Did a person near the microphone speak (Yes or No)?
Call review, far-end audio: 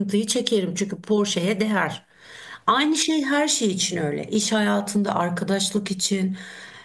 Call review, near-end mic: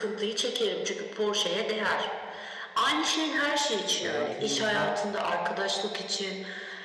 Yes